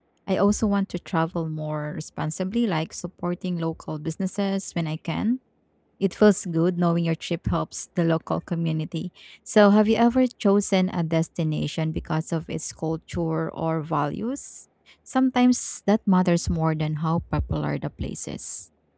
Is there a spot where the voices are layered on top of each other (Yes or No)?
No